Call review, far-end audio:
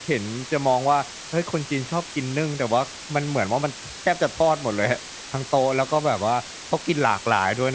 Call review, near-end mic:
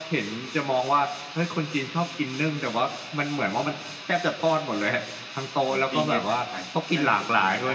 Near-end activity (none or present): present